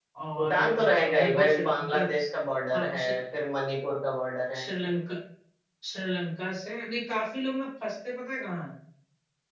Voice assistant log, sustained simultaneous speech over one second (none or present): present